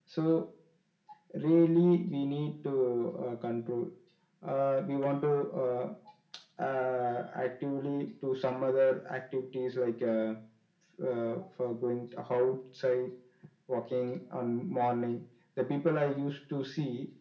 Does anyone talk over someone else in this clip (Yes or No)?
No